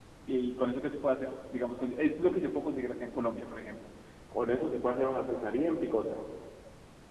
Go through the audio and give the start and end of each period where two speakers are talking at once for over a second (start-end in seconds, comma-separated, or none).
none